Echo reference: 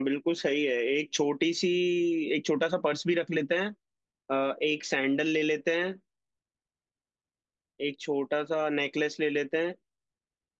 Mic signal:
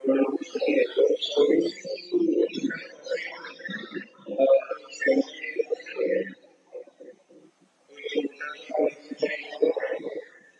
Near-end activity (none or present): none